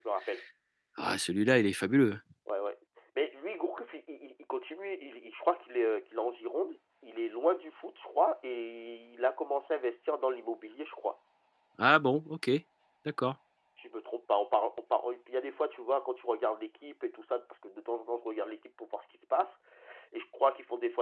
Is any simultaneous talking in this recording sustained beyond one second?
No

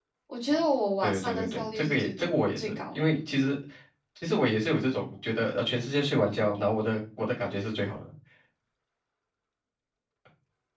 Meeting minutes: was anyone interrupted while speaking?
Yes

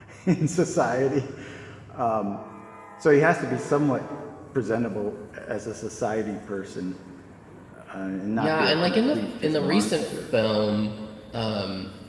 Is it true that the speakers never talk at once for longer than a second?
No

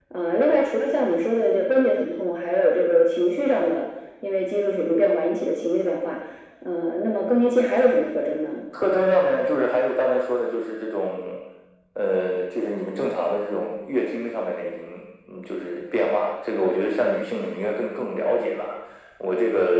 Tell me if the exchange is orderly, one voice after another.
Yes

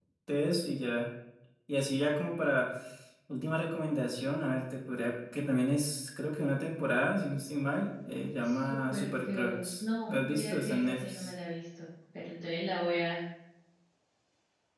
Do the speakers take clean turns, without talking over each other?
No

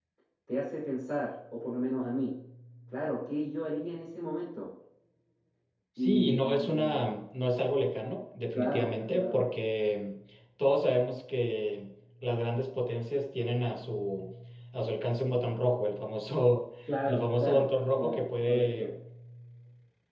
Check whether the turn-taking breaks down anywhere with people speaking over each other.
Yes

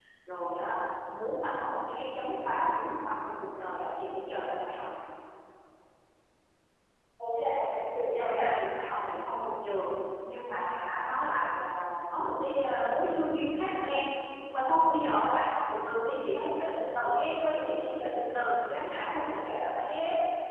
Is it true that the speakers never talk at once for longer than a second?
Yes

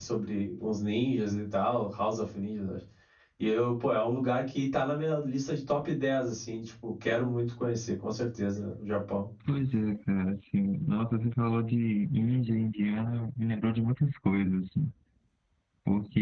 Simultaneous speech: No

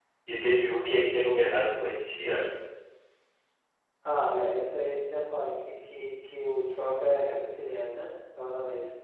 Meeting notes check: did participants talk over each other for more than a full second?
No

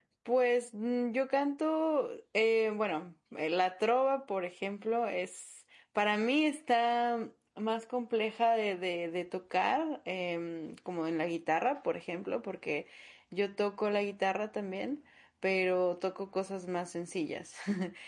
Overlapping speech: No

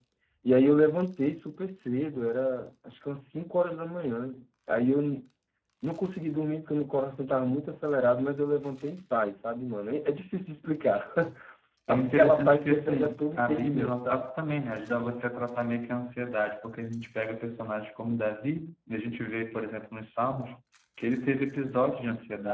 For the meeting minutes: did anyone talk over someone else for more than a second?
Yes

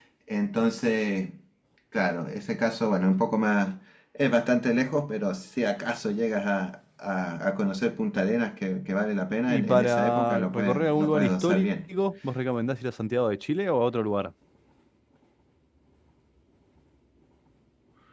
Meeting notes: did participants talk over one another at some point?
Yes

